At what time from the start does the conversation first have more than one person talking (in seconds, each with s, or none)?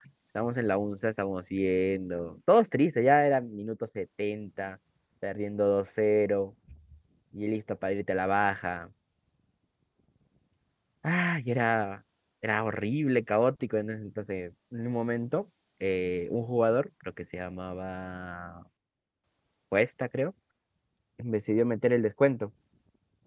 none